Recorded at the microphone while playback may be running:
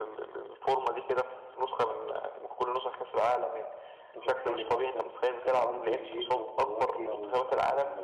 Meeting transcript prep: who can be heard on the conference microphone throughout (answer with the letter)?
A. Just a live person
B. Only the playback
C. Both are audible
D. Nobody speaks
C